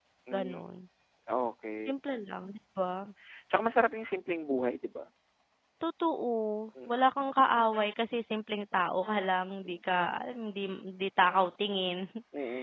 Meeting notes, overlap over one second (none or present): none